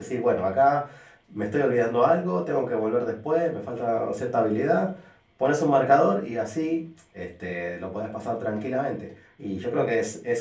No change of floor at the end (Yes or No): Yes